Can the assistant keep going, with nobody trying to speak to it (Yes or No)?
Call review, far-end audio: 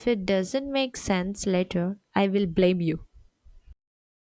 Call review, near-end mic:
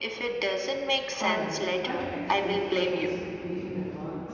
No